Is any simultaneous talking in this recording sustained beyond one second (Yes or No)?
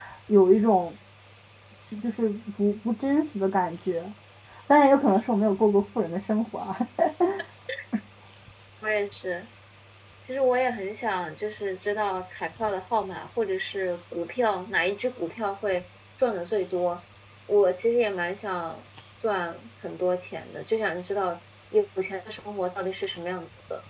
No